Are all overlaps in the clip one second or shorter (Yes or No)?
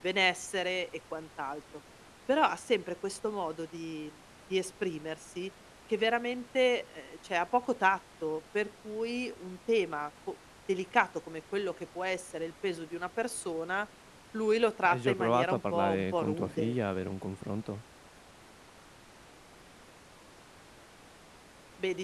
No